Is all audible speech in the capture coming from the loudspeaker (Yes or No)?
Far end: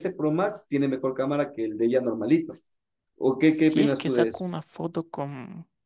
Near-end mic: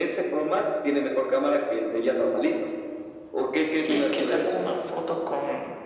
Yes